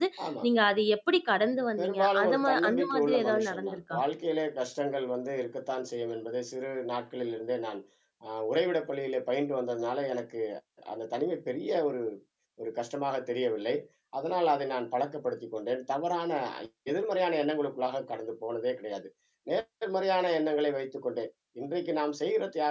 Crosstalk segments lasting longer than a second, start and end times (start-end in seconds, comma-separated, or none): 1.8-4.0